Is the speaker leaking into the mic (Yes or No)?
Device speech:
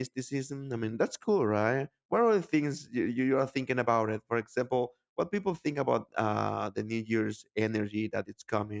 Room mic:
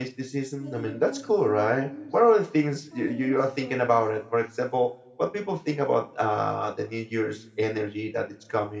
Yes